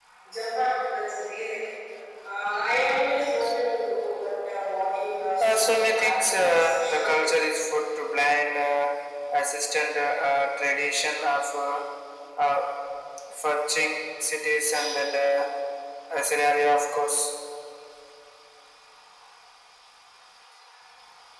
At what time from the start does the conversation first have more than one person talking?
5.4 s

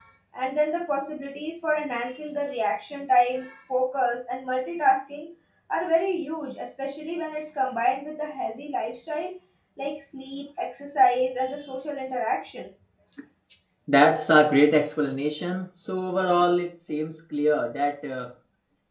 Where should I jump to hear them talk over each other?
none

